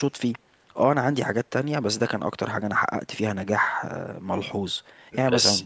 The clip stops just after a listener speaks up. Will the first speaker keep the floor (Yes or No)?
Yes